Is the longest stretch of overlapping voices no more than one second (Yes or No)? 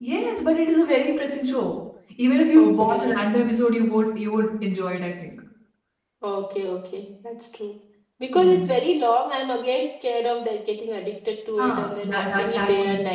No